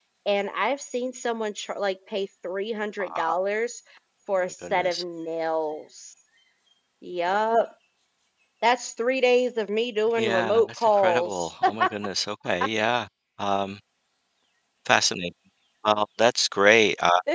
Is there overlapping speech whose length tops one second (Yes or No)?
Yes